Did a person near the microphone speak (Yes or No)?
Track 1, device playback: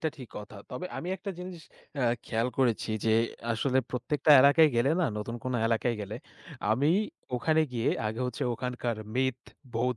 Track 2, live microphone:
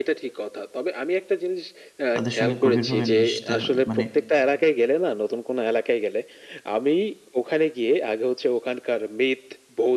Yes